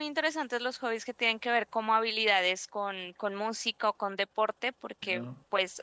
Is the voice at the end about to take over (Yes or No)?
No